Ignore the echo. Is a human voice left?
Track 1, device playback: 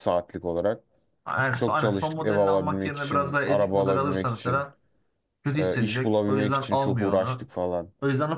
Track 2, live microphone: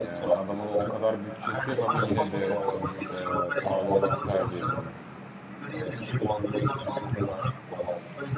Yes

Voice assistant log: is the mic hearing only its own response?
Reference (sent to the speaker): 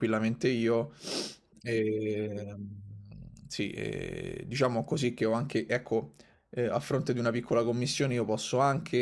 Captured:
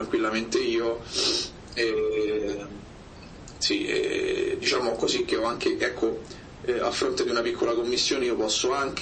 Yes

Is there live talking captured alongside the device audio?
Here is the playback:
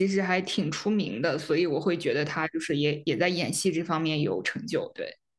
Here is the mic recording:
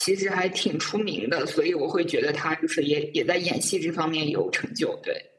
No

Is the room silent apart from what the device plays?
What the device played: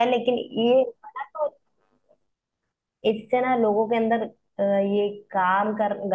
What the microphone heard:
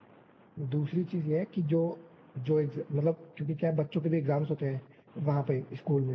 No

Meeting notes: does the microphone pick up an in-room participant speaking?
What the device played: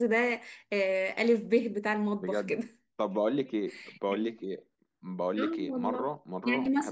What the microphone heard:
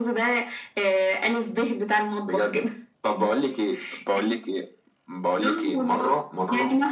No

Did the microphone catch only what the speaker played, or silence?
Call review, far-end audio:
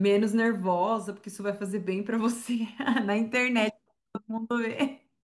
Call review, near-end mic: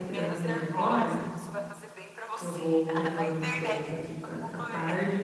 No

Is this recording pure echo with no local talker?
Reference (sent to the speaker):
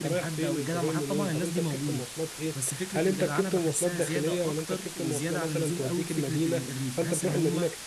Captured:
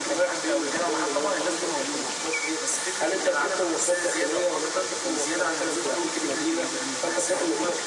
Yes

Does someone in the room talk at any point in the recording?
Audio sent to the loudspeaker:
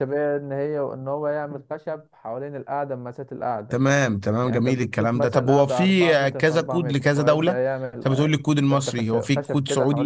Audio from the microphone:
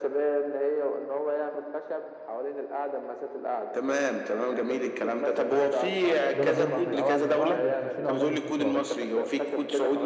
Yes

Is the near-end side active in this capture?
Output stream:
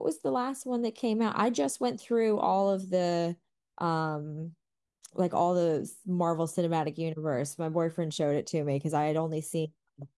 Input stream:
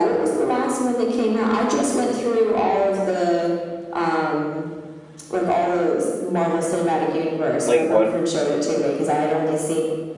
Yes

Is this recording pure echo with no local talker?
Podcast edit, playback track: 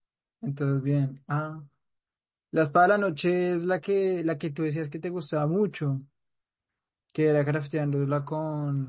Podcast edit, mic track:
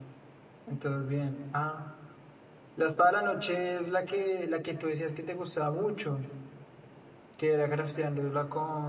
Yes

